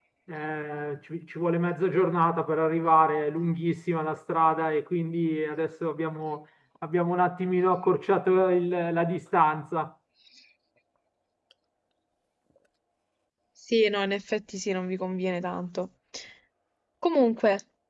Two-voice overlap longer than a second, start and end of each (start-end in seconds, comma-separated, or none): none